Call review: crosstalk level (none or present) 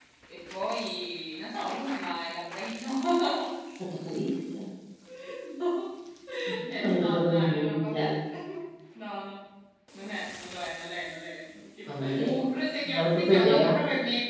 present